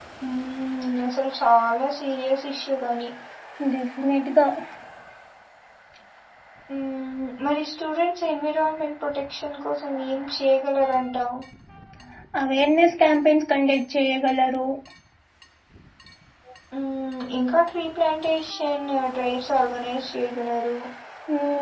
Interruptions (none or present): none